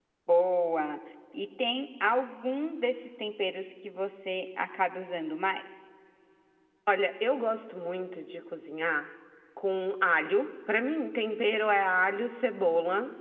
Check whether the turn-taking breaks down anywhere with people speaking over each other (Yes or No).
No